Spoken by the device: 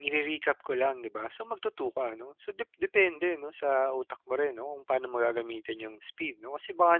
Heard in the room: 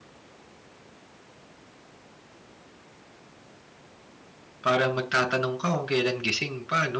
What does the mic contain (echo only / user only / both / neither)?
user only